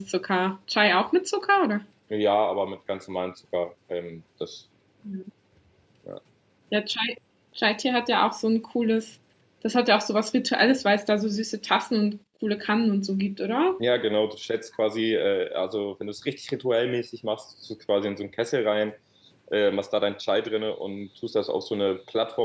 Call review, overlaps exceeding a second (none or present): none